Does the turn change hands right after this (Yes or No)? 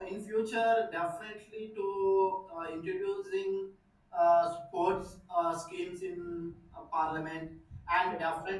No